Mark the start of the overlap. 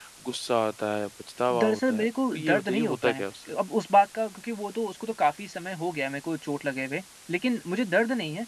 2 s

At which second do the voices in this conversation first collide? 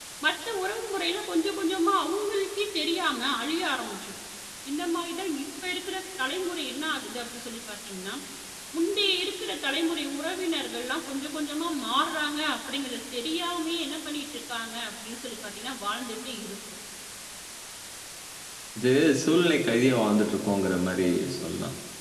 none

